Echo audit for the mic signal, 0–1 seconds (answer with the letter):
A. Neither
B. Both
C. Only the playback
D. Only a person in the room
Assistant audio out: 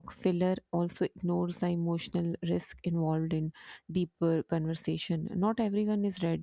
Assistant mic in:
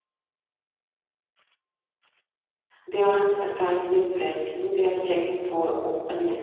A